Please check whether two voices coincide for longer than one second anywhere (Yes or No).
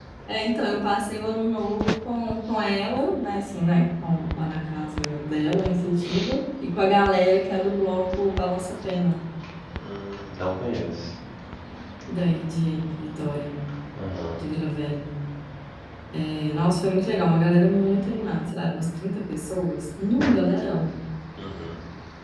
No